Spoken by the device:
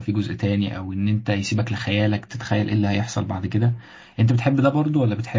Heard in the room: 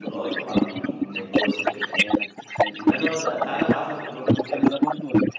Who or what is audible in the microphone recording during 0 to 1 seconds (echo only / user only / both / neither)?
both